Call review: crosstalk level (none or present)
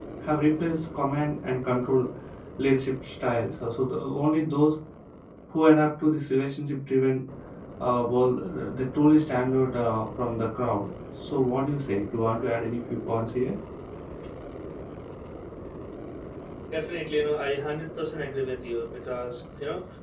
none